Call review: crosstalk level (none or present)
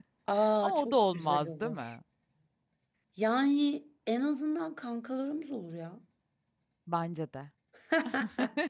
present